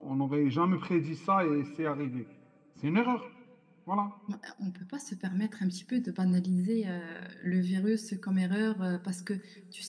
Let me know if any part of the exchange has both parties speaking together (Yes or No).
No